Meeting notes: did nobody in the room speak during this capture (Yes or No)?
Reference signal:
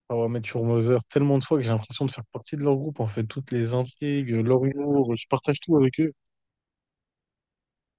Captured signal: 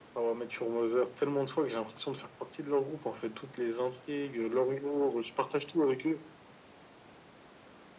Yes